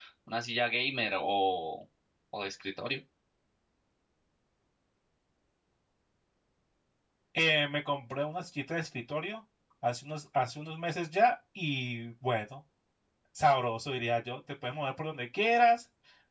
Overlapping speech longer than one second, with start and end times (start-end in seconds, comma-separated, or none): none